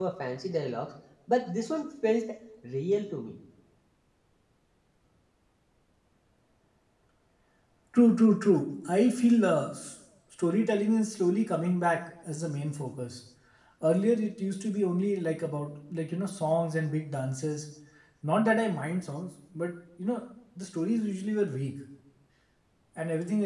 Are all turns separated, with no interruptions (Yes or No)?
Yes